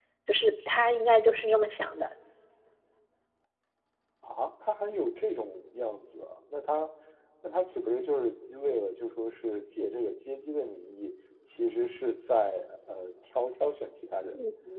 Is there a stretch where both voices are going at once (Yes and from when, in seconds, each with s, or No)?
No